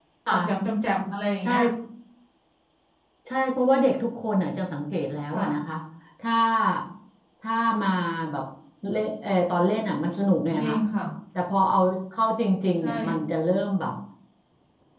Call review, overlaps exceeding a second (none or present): none